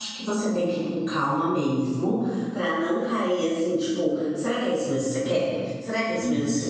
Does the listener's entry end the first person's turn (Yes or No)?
No